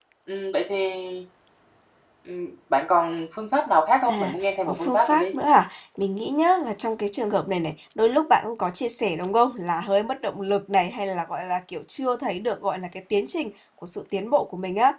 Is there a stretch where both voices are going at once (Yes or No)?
Yes